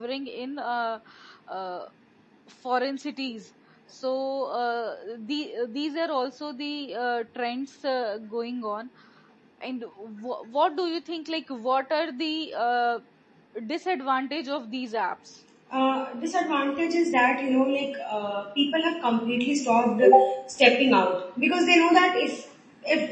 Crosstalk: none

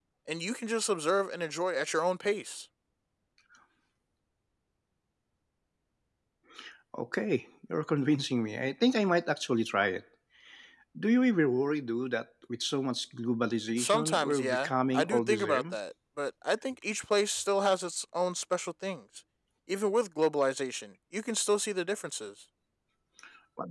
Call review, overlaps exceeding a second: present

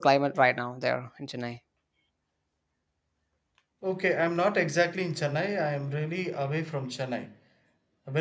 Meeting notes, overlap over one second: none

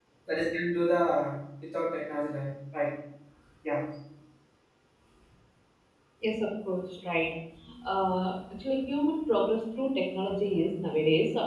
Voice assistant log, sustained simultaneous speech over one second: none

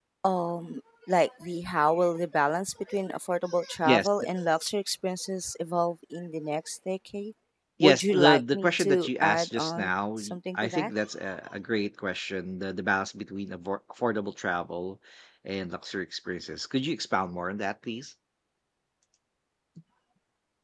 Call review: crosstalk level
present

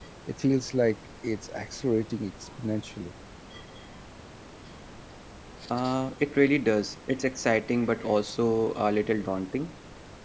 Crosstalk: none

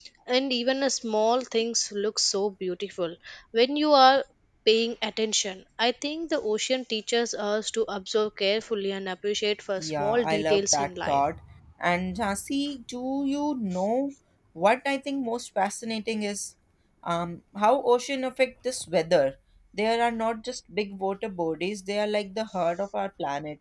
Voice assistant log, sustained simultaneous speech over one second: present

